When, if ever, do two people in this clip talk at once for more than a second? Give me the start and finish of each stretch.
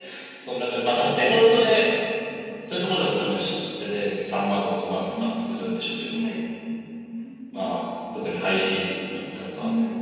none

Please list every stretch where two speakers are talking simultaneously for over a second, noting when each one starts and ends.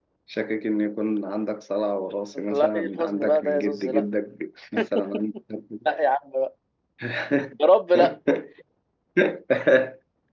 2.4-4.0

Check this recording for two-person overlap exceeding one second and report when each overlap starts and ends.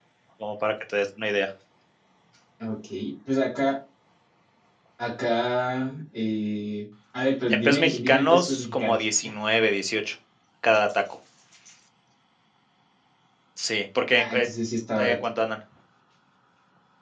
7.5-9.0

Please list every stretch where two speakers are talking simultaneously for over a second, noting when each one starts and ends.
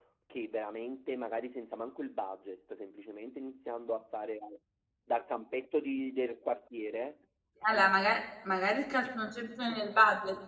none

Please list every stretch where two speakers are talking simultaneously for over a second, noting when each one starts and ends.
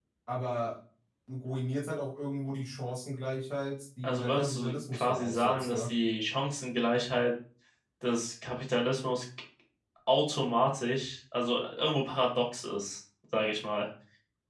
4.0-5.9

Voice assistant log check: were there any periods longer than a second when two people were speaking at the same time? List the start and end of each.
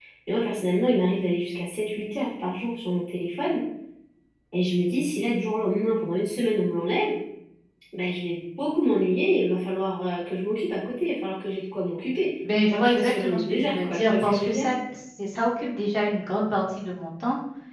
12.6-14.6

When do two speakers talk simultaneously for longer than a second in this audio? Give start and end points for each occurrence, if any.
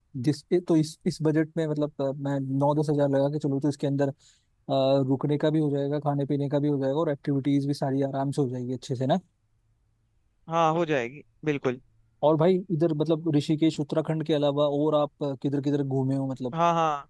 none

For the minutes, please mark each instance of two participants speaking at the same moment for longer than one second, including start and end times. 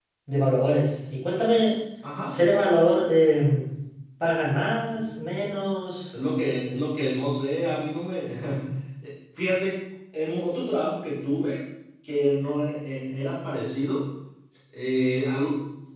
none

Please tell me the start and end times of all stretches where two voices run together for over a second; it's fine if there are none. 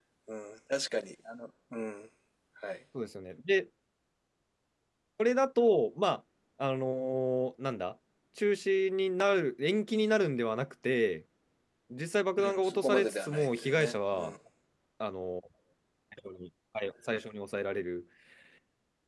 12.4-14.3

